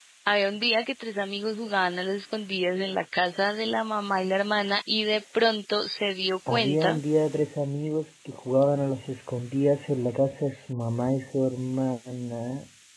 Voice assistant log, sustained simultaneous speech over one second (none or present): none